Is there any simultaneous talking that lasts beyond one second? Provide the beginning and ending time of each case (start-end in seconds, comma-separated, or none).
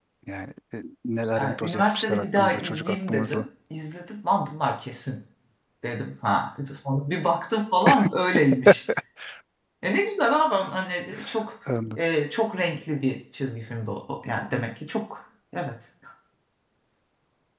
1.4-3.5